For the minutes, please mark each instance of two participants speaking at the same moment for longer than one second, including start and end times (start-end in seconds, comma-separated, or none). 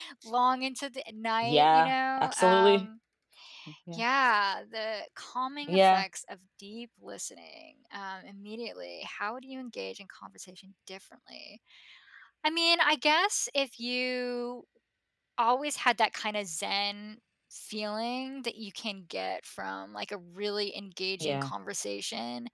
1.4-2.9